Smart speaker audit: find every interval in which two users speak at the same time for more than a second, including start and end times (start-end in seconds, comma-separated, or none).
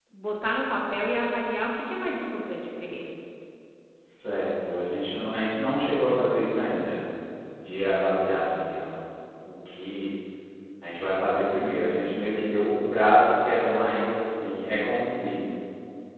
none